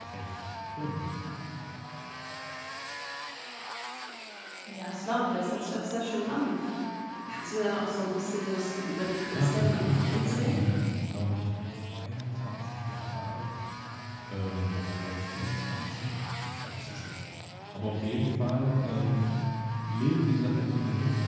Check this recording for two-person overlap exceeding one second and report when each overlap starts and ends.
9.3-10.6

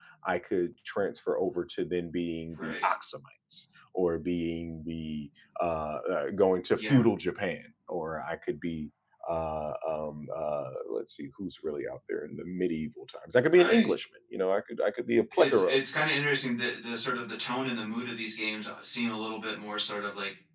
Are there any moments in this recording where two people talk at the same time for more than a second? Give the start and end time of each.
none

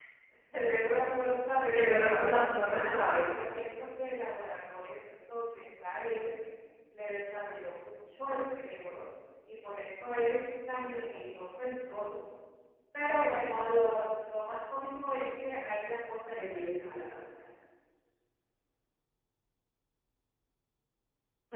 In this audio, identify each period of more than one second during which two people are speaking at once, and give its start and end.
1.8-3.0

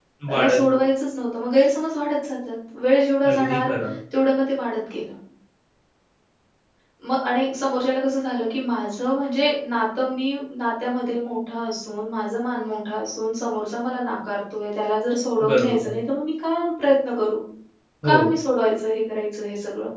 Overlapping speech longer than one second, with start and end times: none

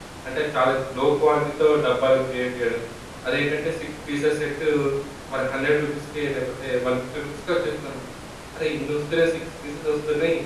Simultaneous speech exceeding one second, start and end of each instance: none

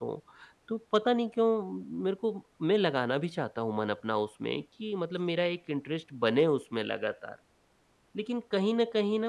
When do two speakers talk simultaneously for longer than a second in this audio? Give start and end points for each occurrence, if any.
none

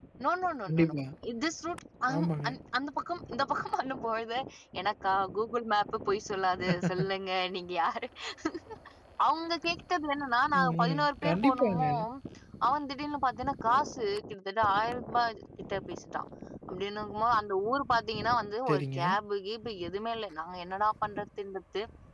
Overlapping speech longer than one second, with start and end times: 10.6-11.8

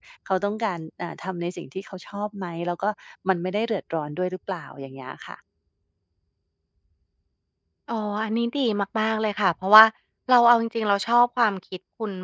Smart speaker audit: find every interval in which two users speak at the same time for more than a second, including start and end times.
none

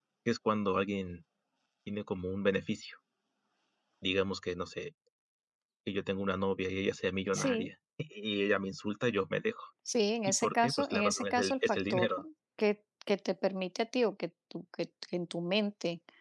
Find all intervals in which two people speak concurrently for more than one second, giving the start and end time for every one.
10.3-12.1

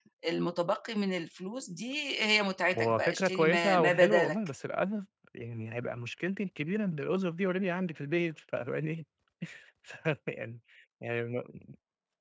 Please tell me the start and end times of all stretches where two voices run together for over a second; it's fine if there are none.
2.8-4.4

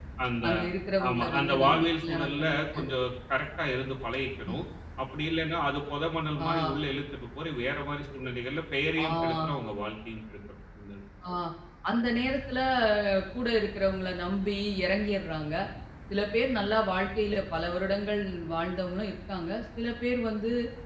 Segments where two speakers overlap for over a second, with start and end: 1.1-2.8

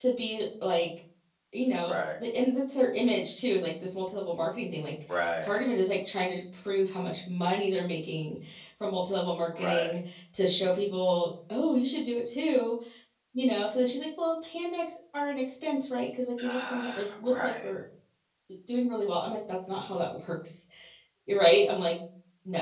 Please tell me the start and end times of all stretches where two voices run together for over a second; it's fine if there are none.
16.4-17.7

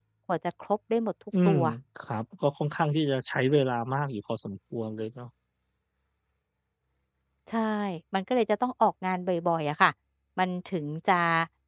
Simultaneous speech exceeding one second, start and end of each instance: none

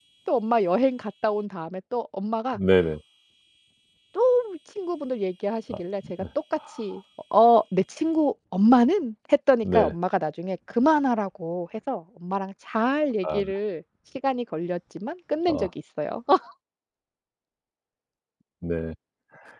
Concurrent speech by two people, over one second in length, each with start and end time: none

